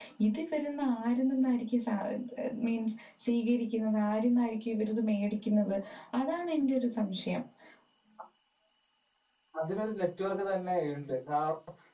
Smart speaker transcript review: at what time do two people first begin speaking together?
none

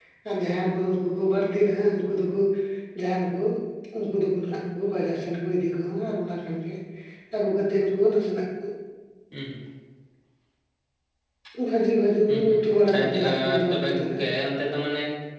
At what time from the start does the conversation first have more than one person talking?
12 s

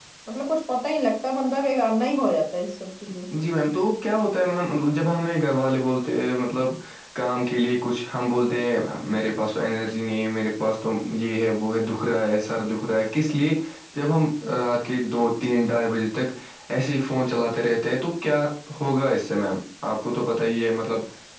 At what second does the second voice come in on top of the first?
none

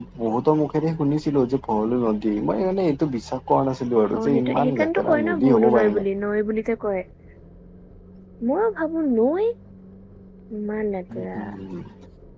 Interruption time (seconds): 4 s

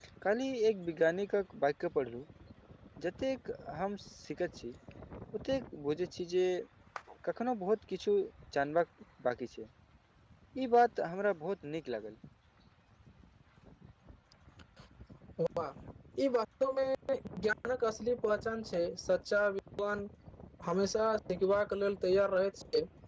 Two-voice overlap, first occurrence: none

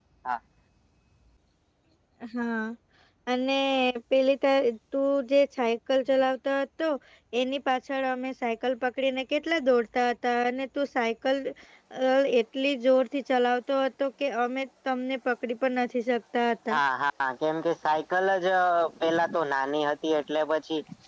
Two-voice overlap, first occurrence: none

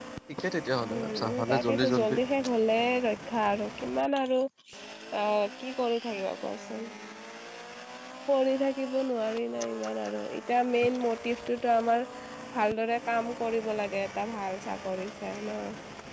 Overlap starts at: 1 s

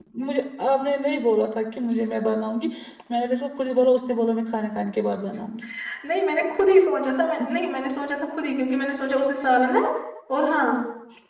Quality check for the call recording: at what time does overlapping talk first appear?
none

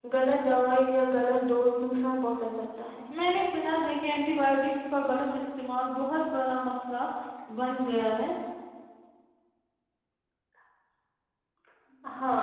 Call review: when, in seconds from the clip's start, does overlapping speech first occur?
none

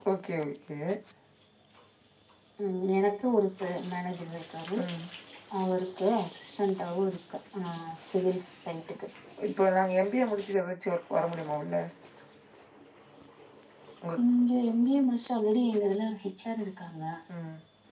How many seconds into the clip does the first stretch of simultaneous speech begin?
none

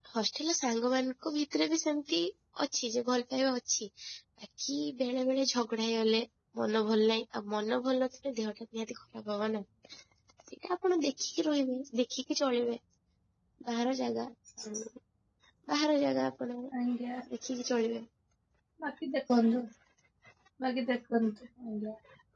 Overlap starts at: none

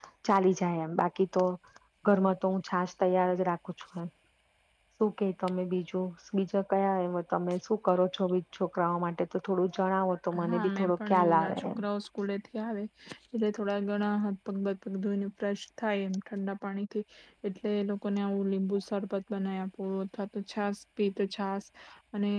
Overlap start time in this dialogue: 10 s

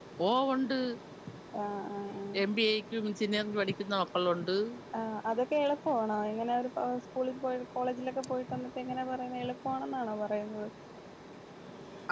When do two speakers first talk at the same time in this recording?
none

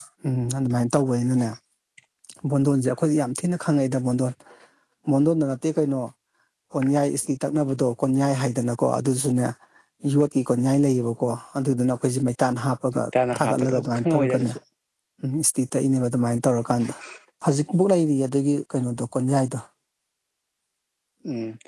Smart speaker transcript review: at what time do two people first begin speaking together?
13 s

